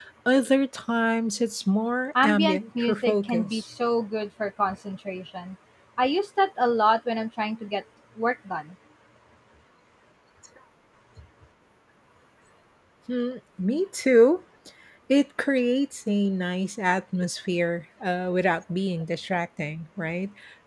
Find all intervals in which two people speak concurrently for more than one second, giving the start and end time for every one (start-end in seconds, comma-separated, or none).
2.2-3.6